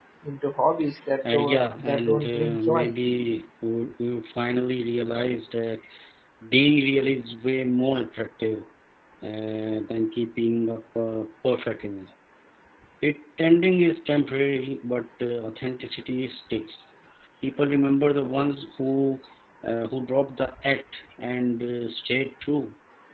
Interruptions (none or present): present